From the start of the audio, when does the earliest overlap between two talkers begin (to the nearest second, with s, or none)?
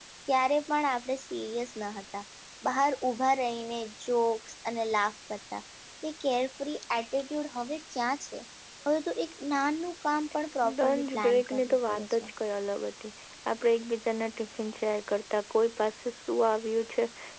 11 s